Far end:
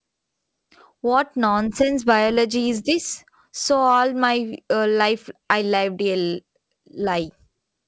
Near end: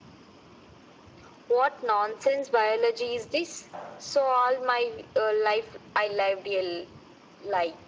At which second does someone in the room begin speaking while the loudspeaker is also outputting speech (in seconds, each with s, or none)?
none